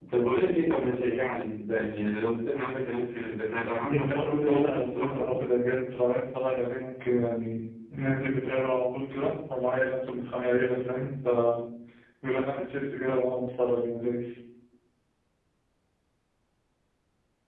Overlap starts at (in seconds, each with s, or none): 3.9 s